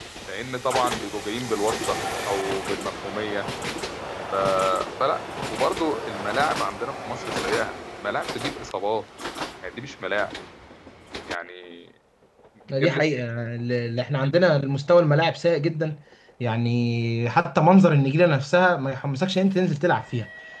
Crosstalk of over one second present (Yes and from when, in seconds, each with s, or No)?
No